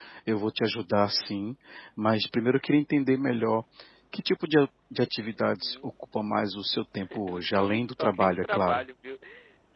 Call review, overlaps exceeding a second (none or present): present